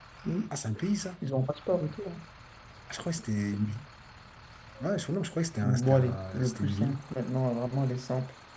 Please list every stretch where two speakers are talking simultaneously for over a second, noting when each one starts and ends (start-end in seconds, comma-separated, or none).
5.6-7.0